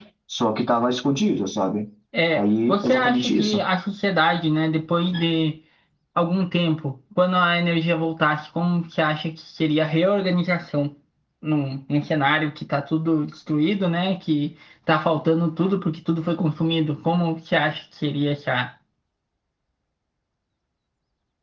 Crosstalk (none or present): present